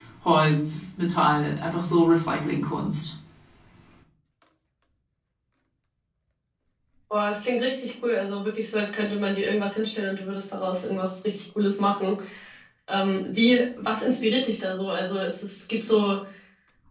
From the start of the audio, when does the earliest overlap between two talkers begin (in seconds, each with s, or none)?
none